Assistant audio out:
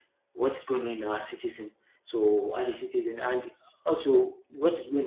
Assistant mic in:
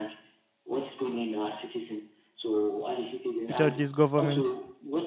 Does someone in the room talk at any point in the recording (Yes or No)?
Yes